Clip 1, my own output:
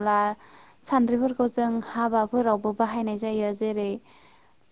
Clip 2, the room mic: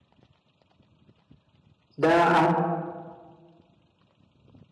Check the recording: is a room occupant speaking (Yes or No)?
Yes